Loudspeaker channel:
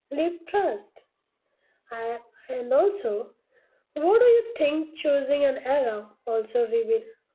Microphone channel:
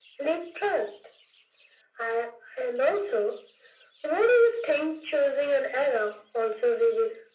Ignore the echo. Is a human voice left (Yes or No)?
No